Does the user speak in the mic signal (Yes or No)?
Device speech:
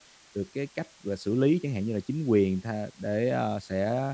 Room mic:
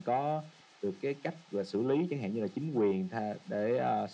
No